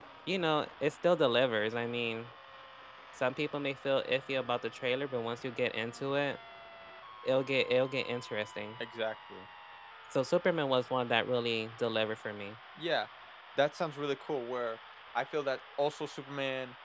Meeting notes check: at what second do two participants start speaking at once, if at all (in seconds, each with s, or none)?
none